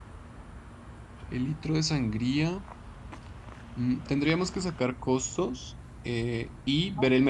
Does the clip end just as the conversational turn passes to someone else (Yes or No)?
No